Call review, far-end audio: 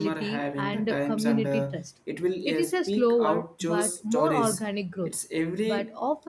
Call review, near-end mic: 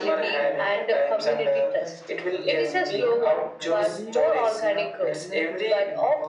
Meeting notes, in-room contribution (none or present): present